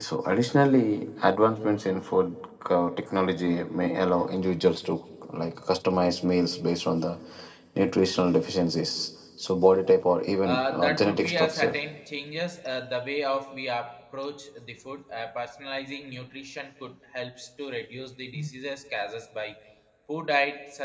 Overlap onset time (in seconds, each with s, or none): 10.4 s